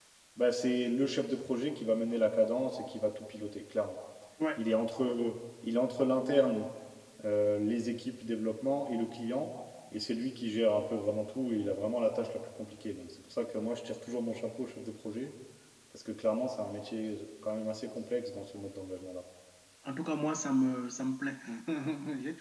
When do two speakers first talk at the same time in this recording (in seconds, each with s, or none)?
none